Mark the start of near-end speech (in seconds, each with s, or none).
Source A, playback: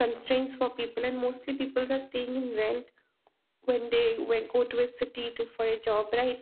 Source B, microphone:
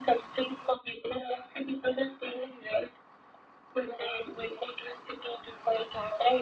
none